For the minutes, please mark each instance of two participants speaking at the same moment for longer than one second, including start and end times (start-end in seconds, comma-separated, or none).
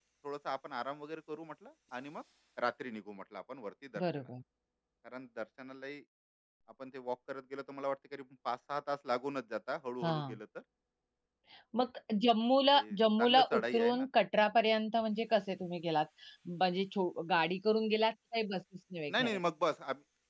12.8-14.0